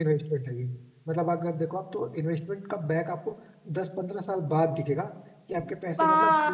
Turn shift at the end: Yes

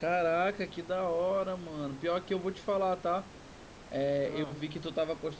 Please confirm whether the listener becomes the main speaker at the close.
No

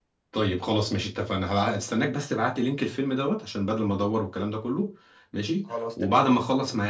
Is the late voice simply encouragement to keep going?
Yes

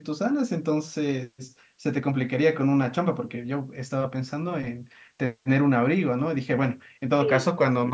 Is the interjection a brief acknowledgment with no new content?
Yes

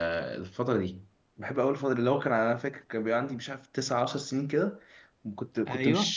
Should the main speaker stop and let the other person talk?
No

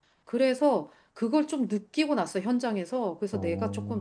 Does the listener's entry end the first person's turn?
No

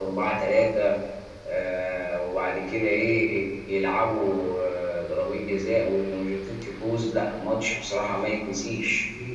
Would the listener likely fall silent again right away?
No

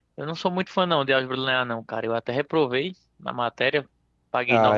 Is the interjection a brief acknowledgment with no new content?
No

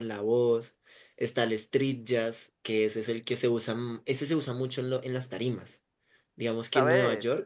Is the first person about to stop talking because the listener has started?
No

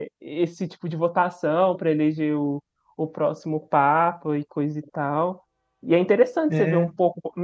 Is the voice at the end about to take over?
No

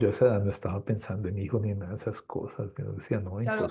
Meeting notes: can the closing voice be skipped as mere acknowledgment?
No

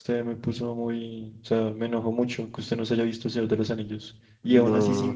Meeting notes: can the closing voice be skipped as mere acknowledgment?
Yes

